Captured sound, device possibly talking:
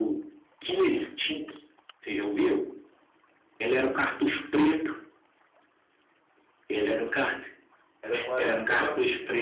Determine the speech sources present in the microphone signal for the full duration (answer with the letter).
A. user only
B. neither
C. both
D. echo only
C